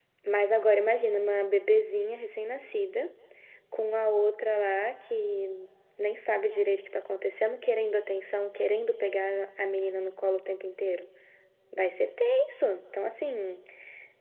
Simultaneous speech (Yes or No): No